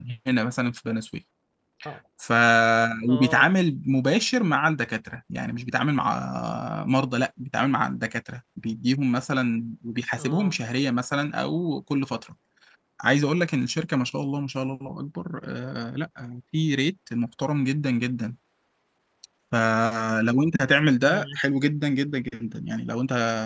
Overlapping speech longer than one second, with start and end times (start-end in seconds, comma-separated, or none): none